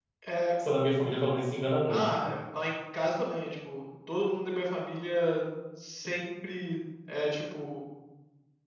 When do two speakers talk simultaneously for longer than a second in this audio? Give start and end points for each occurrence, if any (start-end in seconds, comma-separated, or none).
none